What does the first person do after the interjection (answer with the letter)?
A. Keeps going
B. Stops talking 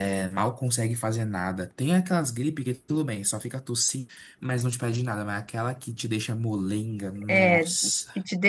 B